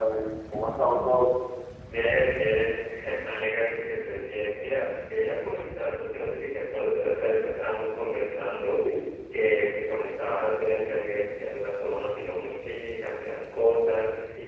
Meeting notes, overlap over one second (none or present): none